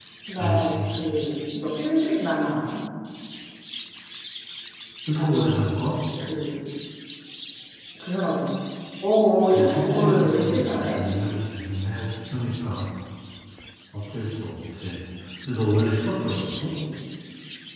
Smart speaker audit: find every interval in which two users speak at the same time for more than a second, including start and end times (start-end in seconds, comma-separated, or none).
9.5-11.0